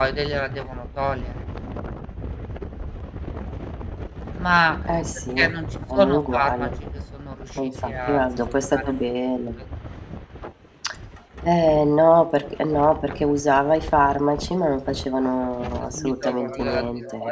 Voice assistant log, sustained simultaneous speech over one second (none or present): present